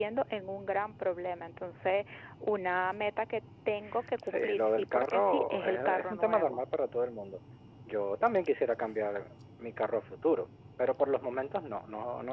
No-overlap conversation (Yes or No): No